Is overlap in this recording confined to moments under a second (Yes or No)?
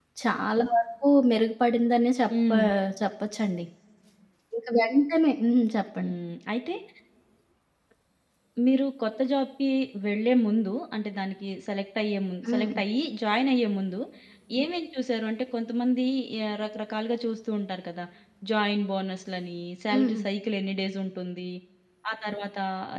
Yes